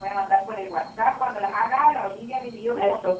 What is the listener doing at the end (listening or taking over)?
listening